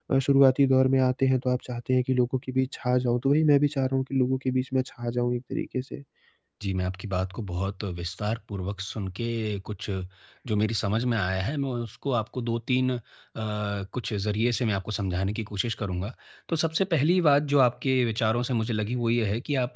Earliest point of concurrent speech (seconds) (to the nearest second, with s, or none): none